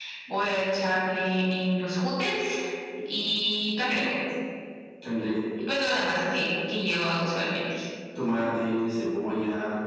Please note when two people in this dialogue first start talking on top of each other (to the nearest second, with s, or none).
none